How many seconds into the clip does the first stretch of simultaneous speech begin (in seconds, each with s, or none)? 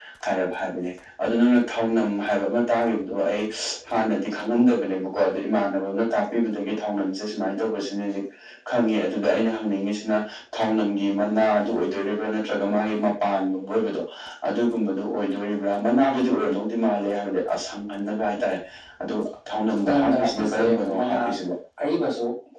19.8 s